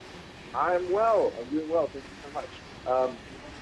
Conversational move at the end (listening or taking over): listening